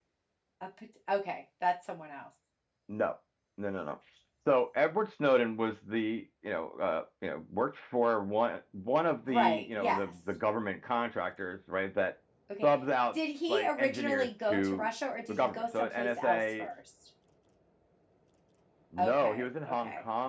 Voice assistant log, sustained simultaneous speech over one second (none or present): present